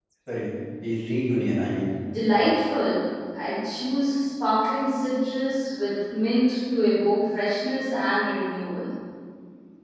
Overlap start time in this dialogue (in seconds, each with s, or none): none